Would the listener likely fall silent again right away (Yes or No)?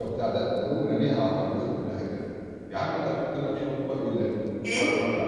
No